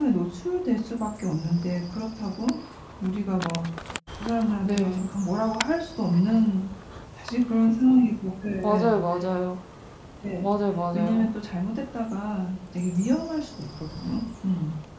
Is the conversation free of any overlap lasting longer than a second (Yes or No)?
Yes